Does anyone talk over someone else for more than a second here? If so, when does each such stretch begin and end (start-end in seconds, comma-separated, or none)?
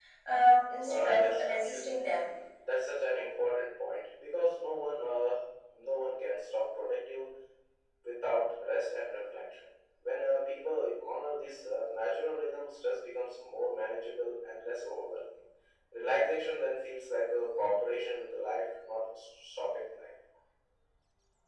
0.9-2.2